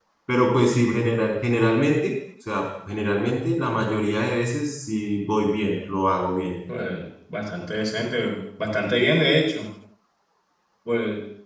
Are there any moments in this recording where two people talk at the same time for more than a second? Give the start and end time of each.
none

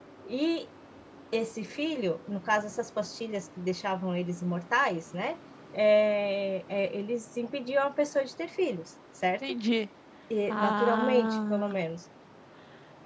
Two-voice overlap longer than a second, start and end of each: 10.5-11.7

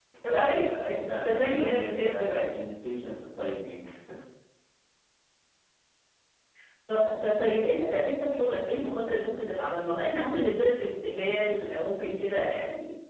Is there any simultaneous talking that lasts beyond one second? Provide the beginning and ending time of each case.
1.0-2.5

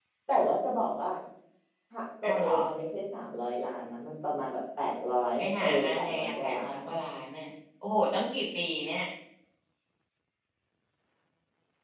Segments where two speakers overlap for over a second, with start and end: 5.4-6.8

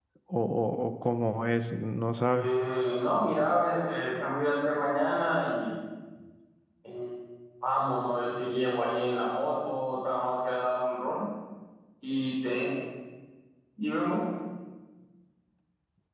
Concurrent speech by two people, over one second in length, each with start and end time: none

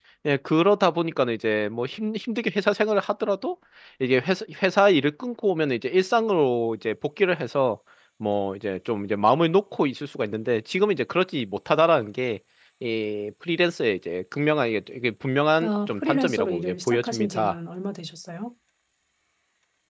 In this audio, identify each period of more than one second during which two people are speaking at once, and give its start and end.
15.6-17.6

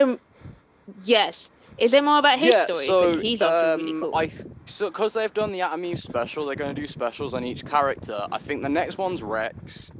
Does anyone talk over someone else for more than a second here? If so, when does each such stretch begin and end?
2.3-4.2

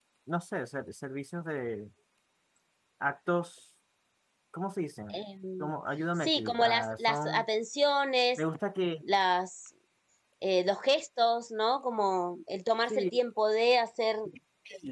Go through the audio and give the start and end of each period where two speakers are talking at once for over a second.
6.2-7.5

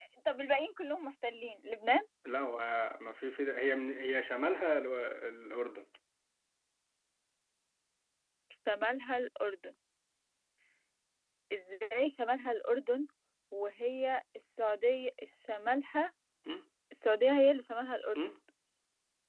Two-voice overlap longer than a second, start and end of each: none

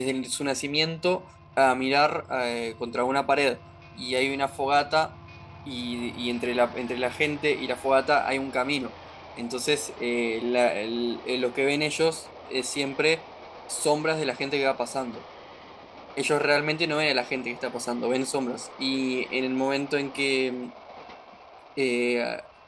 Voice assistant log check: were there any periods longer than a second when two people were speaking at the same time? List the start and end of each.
none

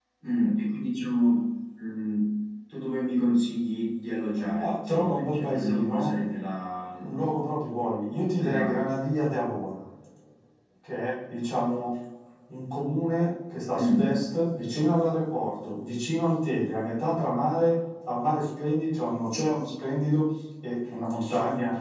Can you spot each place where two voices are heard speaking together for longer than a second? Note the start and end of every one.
4.6-6.1

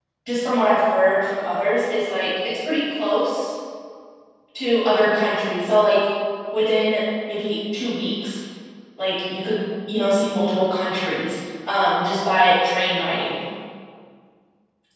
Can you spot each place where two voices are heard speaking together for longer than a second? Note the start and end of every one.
none

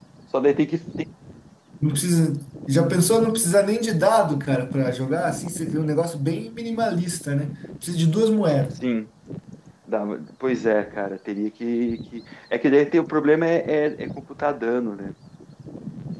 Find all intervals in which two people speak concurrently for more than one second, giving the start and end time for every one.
none

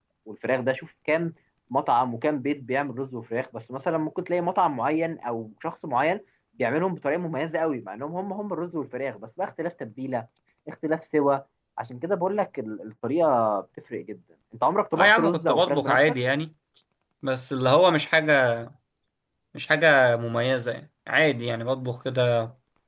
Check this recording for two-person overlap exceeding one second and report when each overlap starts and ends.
14.9-16.2

